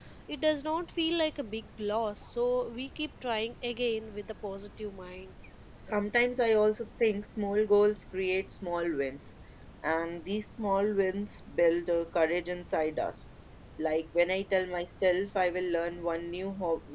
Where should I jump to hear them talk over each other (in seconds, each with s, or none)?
none